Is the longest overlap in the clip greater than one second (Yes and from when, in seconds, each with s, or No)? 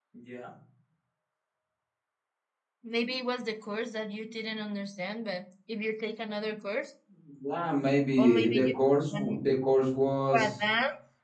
No